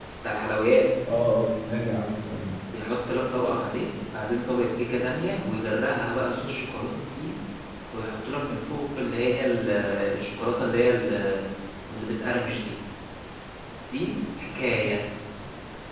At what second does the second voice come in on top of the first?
none

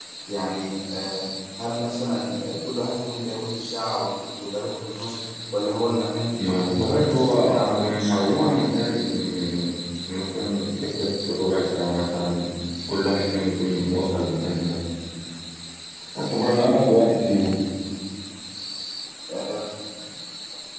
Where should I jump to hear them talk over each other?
6.4 s

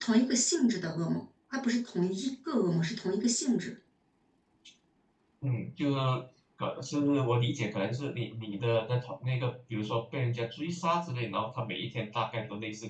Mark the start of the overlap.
none

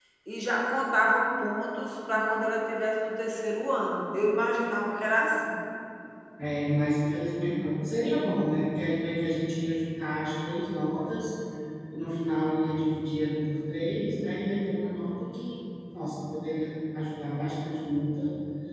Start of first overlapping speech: none

